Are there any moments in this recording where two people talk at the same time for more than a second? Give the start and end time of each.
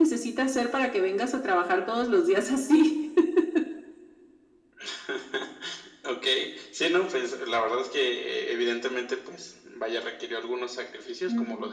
none

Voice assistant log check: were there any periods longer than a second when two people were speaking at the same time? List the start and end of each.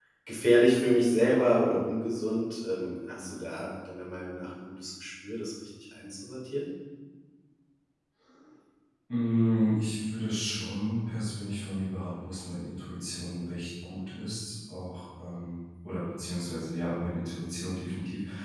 none

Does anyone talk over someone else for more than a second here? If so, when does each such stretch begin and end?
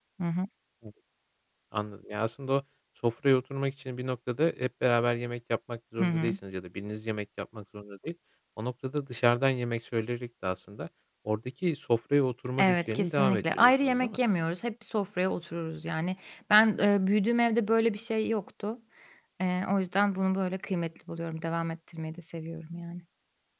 12.6-14.2

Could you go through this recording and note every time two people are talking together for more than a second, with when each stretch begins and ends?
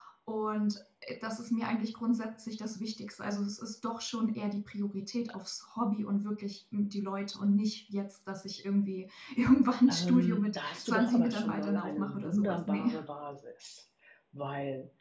9.9-12.9

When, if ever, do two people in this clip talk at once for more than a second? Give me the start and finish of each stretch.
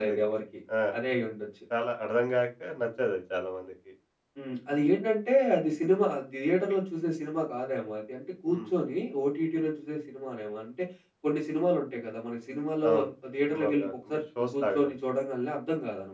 13.5-15.0

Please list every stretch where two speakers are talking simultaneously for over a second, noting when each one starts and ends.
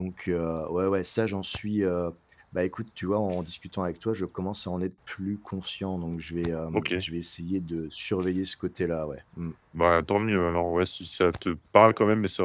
none

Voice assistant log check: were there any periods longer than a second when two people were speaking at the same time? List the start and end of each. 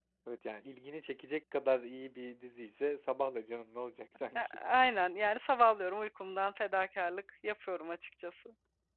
none

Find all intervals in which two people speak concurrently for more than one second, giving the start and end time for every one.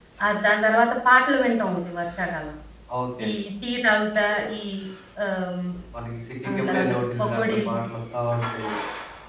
6.5-7.8

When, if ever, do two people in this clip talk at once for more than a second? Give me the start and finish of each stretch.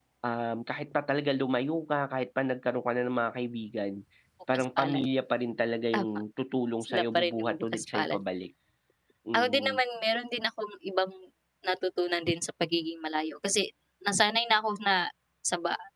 6.9-8.2

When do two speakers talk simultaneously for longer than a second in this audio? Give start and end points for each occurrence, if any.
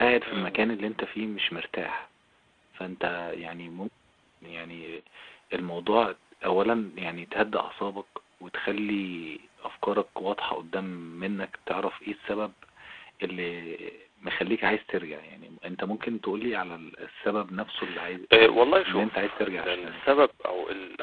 18.3-20.0

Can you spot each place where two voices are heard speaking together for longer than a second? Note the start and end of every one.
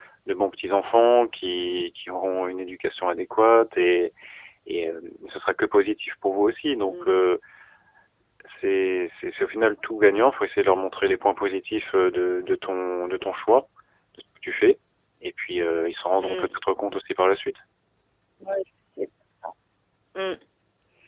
none

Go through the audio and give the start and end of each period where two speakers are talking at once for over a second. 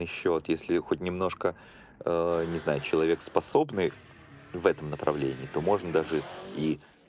none

